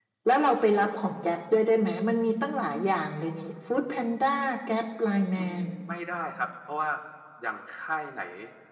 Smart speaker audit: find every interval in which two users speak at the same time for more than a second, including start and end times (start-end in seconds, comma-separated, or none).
none